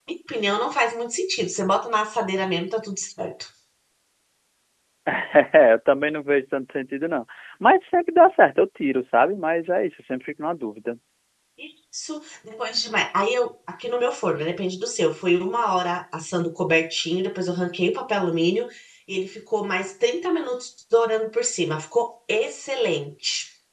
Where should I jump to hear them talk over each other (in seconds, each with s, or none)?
none